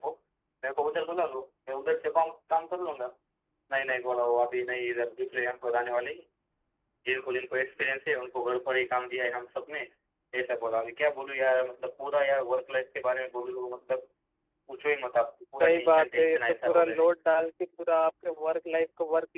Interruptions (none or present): present